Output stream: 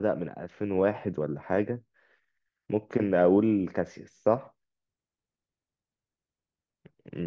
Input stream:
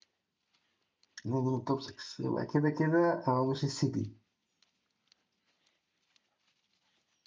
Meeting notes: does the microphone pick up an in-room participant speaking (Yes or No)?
Yes